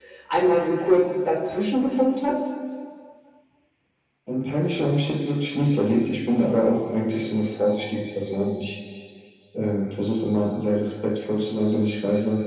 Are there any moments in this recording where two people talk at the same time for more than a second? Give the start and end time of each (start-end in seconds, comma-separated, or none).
none